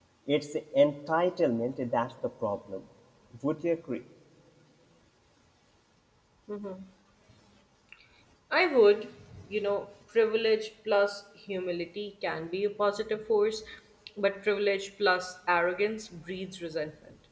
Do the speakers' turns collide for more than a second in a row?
No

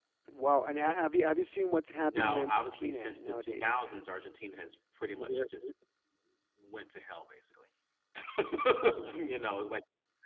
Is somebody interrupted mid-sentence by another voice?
Yes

